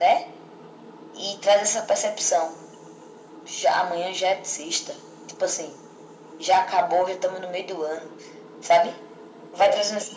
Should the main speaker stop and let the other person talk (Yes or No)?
No